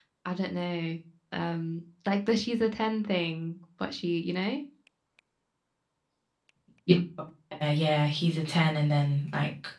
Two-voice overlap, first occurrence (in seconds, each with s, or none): none